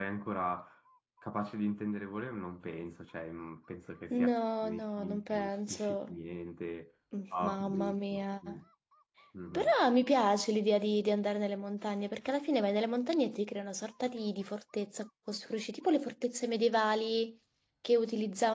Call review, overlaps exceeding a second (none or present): present